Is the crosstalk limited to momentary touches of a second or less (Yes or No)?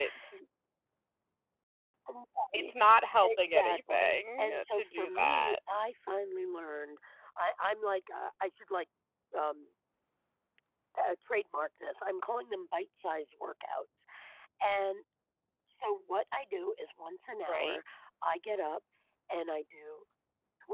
No